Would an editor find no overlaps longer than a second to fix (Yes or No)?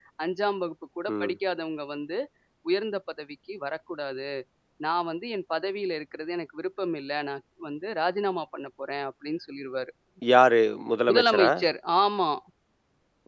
Yes